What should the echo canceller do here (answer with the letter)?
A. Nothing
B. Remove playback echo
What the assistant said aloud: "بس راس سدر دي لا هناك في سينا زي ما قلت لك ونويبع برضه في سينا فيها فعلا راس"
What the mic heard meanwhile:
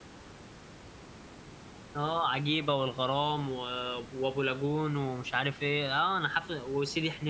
A